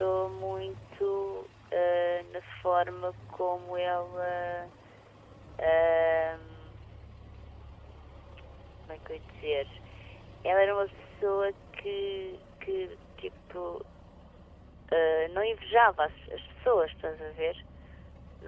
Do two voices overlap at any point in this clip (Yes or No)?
No